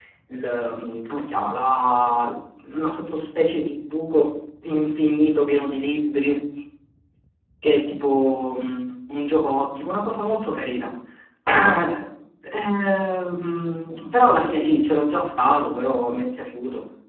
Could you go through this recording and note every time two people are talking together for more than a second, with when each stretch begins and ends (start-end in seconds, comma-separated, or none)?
none